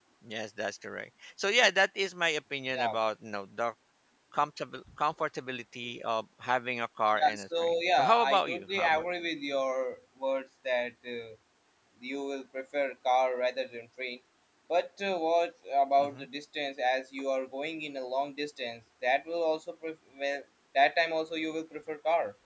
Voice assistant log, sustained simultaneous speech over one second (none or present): present